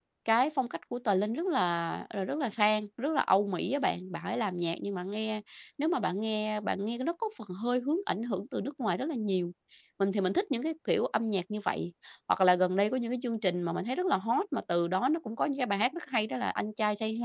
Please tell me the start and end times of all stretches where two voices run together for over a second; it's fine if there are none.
none

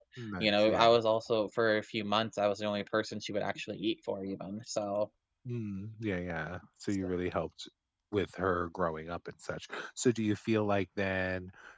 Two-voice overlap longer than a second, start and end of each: none

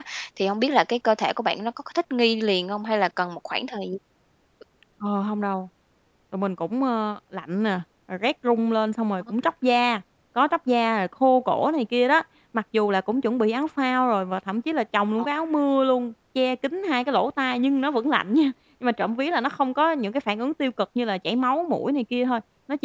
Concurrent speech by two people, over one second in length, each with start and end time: none

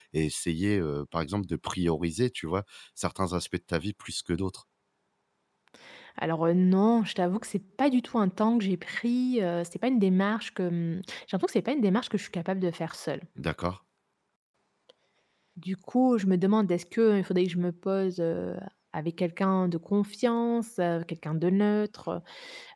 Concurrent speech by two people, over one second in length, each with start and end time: none

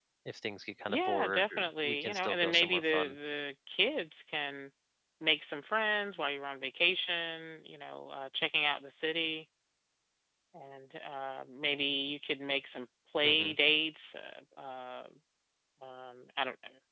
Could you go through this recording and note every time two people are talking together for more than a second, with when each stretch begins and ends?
0.9-3.2

